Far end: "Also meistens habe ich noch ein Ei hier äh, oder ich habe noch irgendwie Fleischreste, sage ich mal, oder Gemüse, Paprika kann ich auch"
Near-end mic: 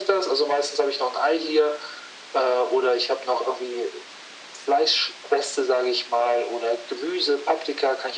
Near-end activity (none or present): none